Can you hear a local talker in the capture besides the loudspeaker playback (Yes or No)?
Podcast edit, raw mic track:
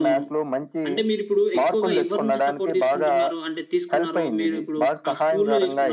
Yes